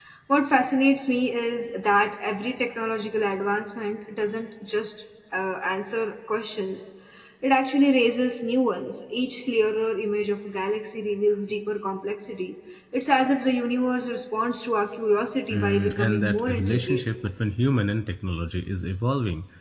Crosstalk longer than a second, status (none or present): present